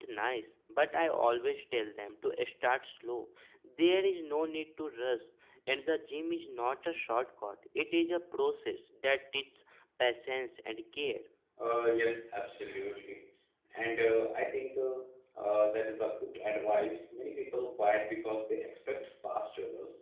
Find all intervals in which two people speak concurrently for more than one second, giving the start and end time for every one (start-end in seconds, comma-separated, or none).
none